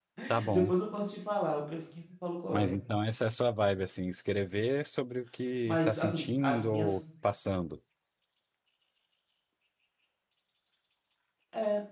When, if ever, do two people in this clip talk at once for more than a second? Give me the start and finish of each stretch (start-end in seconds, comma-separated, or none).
5.7-7.0